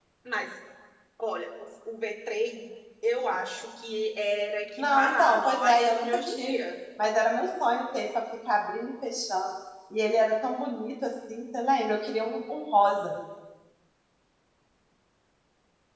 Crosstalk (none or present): present